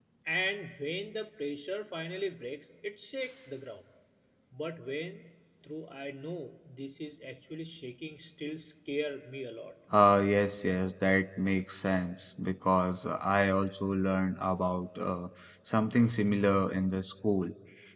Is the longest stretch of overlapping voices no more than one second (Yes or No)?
Yes